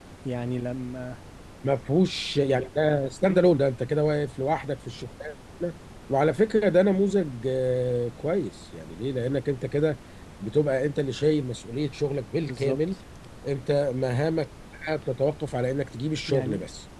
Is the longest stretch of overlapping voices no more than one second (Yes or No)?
Yes